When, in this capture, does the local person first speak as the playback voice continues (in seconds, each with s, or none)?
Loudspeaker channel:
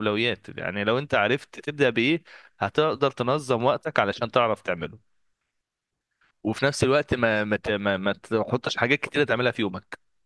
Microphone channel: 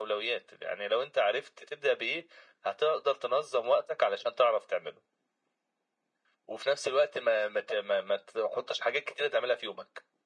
none